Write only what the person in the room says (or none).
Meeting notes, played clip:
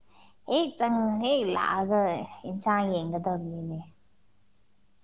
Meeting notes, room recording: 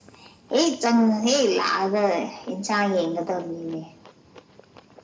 none